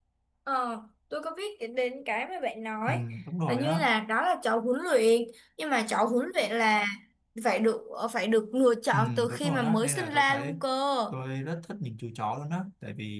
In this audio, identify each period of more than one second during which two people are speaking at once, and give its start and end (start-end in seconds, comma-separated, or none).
8.9-10.5